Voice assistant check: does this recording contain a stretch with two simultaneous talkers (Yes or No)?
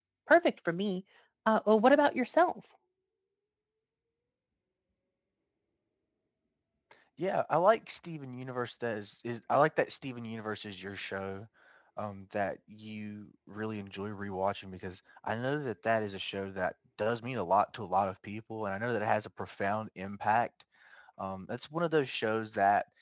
No